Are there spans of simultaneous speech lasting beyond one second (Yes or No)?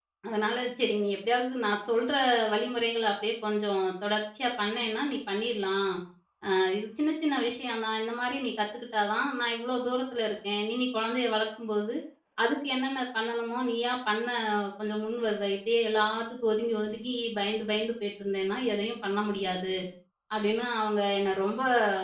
No